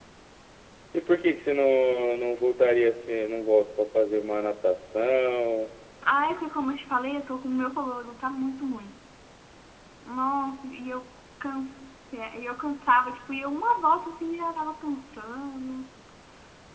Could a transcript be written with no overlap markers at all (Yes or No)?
Yes